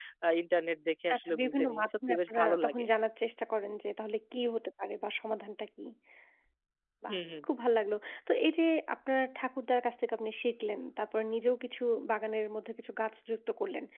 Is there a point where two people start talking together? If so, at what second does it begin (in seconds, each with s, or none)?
1.1 s